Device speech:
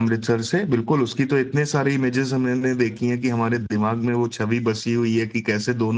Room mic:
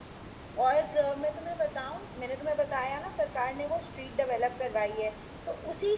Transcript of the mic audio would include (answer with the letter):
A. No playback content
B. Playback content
A